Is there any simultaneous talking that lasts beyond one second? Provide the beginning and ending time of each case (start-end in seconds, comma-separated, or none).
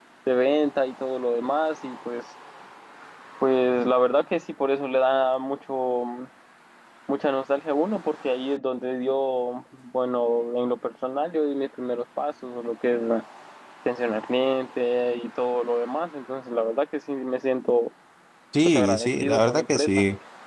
18.6-19.9